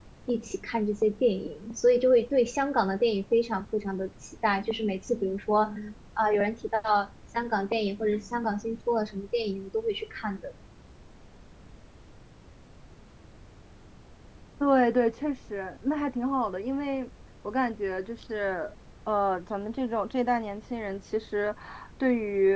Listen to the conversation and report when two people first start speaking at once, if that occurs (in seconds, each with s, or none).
none